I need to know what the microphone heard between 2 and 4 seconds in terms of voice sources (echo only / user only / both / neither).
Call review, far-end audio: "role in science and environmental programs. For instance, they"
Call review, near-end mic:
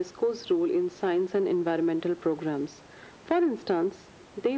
echo only